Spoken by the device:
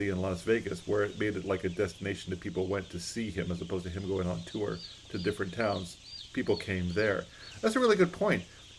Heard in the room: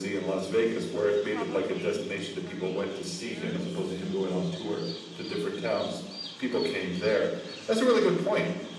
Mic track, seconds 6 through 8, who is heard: echo only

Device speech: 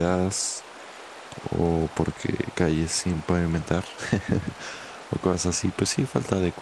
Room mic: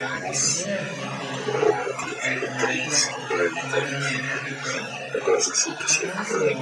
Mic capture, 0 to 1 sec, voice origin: both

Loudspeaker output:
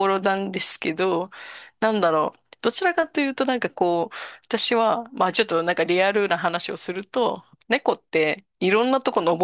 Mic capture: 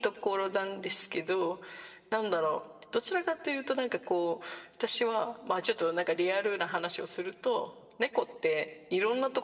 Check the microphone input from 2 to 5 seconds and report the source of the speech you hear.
echo only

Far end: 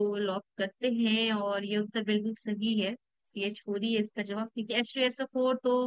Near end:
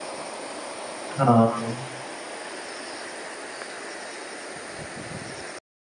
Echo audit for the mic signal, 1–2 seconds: user only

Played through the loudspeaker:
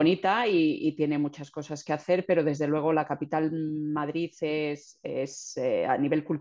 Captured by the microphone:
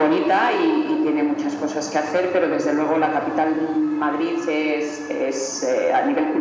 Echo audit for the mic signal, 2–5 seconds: echo only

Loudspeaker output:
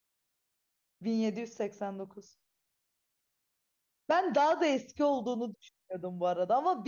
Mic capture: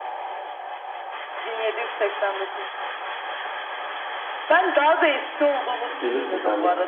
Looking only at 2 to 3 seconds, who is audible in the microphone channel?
echo only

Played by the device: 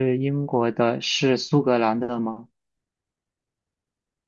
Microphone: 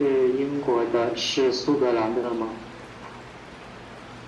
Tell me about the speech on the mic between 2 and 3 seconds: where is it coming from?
echo only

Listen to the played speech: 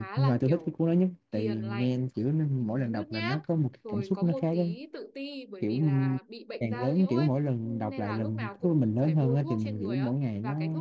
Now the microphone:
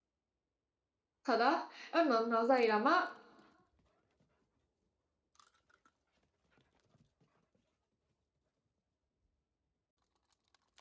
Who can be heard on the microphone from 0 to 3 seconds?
user only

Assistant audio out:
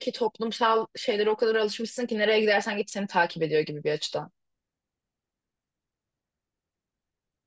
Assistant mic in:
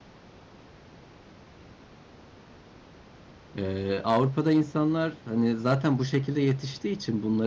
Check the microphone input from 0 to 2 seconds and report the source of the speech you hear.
neither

